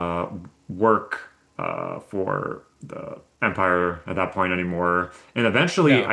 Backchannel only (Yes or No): Yes